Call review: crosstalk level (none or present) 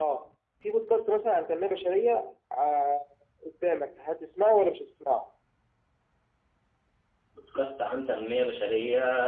none